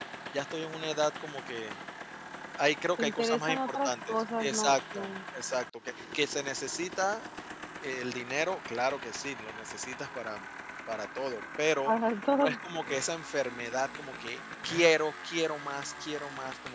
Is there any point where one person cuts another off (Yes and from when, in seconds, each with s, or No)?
Yes, from 3.0 s